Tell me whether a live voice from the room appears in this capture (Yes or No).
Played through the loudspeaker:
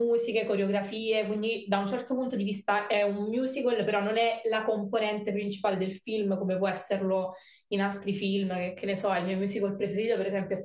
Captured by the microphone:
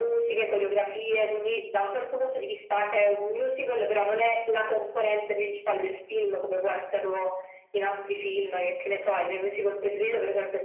No